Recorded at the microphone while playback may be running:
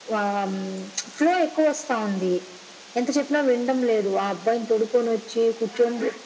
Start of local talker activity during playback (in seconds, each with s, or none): none